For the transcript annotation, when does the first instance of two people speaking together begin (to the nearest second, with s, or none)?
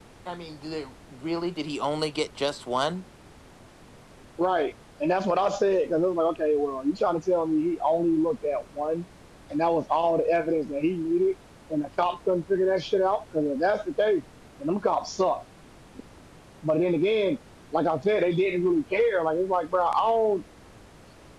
none